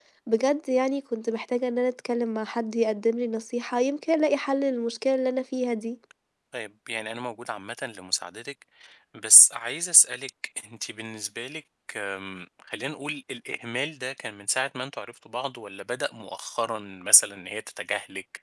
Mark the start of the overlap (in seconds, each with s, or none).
none